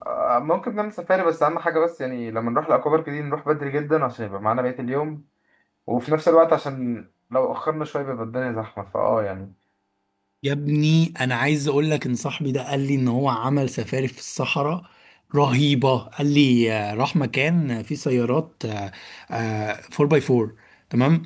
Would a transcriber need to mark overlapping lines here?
No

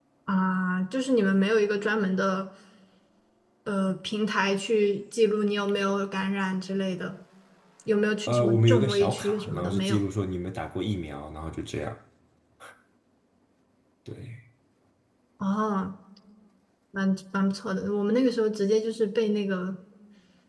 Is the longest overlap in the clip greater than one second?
Yes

